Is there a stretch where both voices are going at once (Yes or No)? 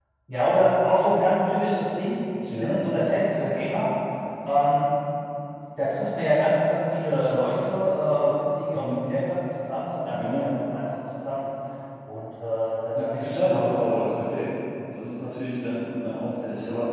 Yes